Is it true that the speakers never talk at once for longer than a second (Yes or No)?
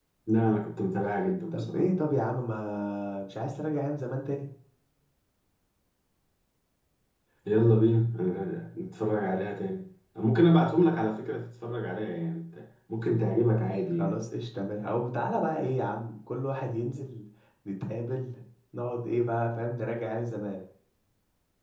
Yes